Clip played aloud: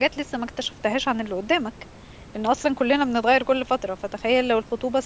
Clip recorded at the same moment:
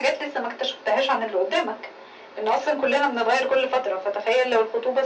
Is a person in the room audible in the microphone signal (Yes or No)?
No